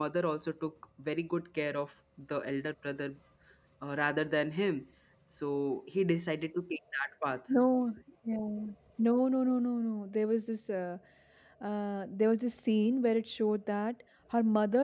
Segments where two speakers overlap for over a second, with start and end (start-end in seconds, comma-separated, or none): none